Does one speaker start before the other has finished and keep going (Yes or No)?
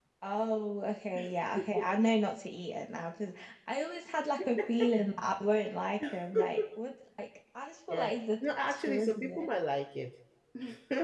Yes